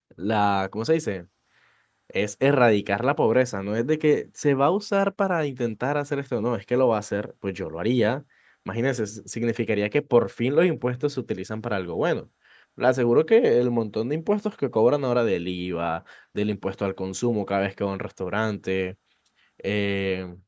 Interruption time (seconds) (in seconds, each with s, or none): none